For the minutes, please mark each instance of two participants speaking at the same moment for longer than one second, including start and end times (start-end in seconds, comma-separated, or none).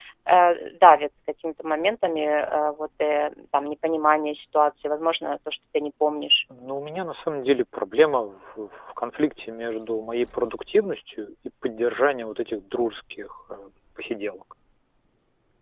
none